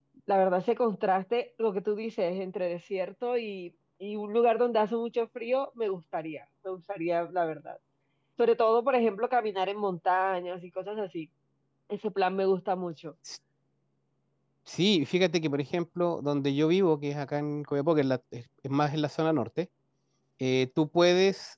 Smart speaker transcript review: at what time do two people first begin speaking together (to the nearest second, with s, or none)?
none